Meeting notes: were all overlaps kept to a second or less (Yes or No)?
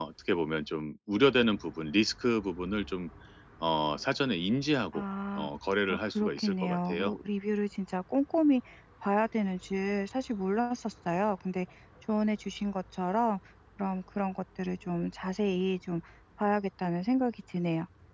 No